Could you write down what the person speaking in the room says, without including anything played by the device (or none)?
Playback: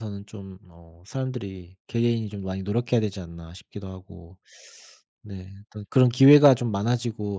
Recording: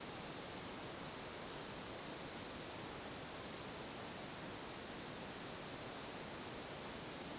none